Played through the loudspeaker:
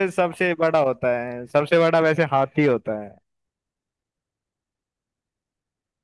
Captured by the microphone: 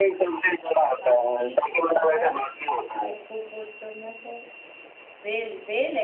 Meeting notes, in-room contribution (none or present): present